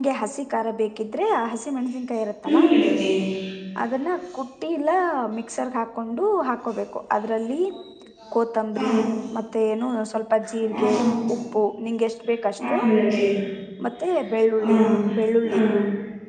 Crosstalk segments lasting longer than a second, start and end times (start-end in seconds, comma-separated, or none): none